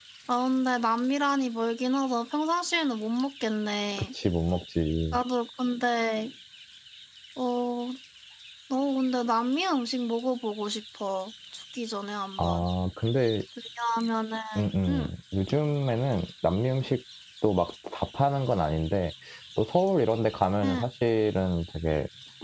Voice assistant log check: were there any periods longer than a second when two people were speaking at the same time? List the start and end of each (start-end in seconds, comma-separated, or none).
none